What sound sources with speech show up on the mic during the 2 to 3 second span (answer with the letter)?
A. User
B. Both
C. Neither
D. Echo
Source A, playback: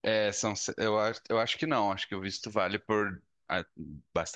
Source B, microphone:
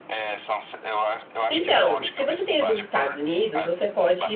B